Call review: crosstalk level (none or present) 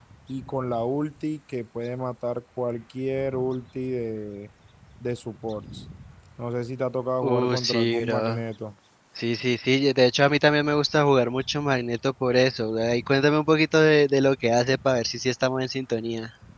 present